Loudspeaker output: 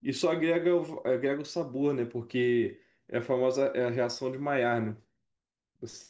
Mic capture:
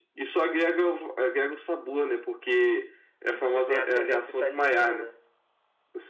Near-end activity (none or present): present